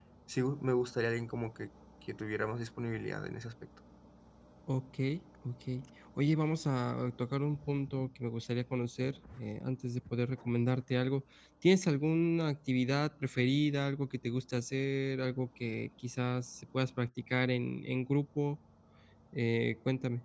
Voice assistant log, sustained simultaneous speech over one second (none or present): none